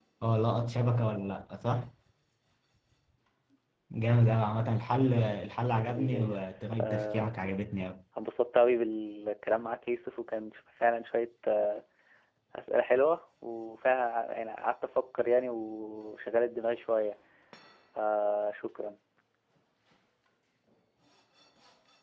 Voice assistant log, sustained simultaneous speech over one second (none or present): present